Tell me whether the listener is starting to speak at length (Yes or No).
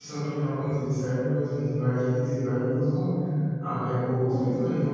No